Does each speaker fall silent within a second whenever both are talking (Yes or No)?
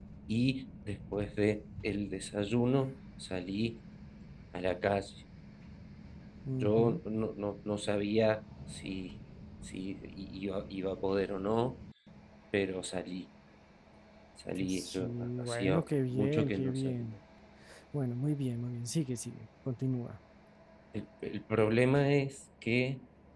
No